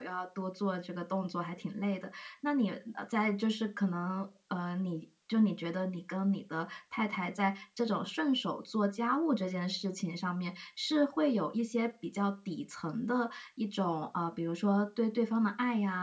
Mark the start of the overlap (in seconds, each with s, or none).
none